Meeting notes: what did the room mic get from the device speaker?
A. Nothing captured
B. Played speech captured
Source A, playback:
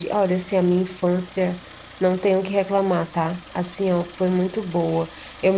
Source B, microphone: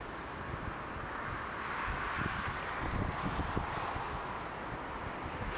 A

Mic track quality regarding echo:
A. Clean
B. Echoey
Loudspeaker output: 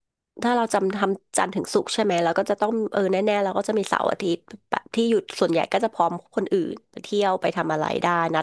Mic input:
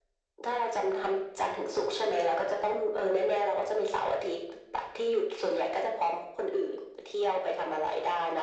B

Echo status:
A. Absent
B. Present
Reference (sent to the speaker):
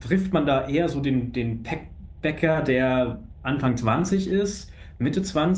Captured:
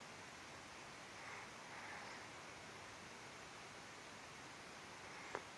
A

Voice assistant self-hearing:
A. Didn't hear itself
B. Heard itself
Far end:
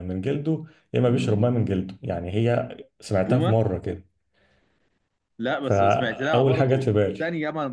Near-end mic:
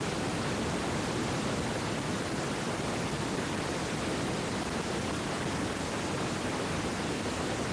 A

